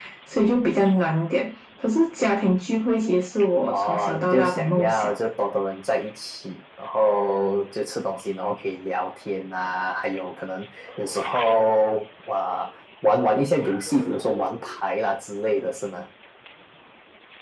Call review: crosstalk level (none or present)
present